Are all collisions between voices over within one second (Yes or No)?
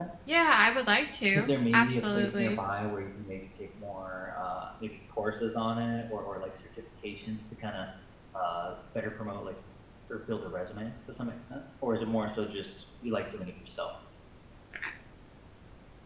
No